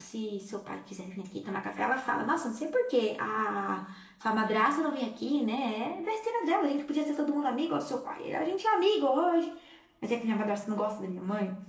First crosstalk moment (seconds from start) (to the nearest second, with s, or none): none